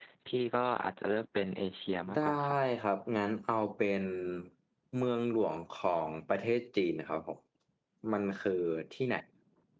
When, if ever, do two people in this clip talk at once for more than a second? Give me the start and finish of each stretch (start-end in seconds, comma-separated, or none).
none